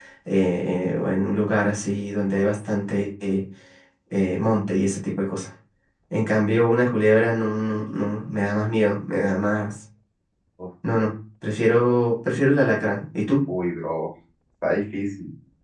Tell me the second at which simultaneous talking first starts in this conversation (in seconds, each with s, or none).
none